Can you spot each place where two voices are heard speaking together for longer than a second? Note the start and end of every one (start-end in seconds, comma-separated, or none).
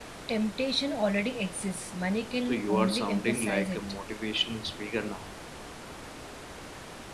2.4-4.0